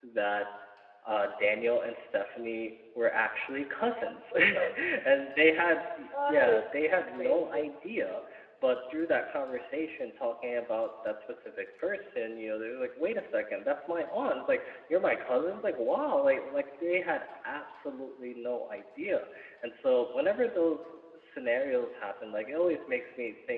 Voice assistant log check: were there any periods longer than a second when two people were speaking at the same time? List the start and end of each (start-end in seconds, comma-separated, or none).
6.3-7.6